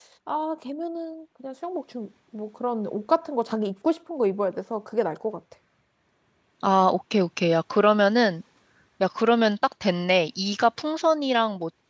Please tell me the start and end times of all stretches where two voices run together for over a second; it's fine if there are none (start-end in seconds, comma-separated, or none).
none